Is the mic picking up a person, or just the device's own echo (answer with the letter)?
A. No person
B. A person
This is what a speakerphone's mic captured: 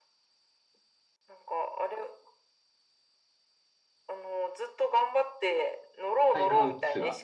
B